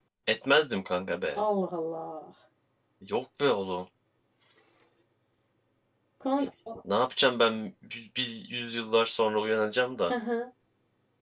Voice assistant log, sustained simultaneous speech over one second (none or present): none